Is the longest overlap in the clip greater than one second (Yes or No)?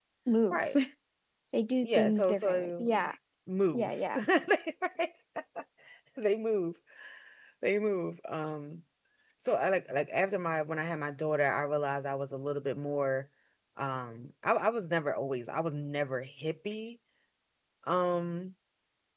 Yes